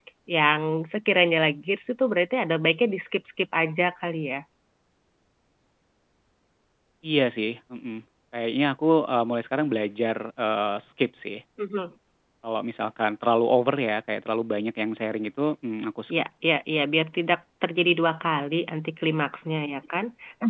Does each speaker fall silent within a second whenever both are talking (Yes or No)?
Yes